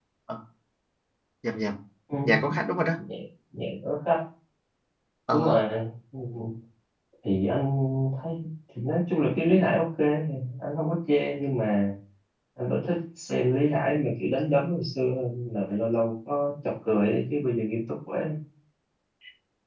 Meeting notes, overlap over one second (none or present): none